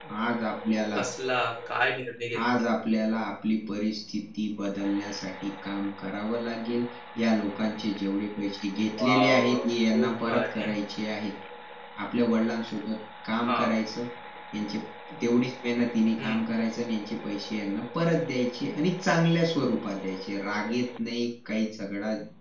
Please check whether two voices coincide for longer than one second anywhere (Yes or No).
Yes